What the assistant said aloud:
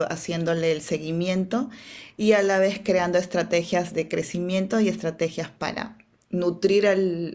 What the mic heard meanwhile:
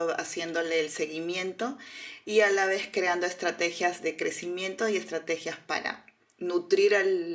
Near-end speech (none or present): none